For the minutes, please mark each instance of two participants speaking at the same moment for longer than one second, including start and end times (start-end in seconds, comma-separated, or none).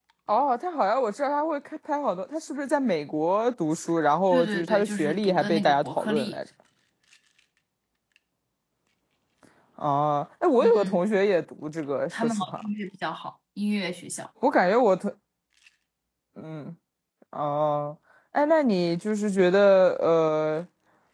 4.3-6.4